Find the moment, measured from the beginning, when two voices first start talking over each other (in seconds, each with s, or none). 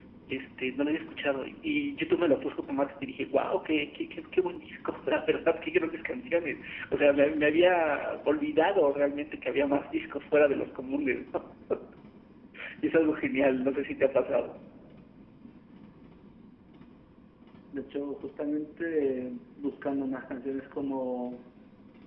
none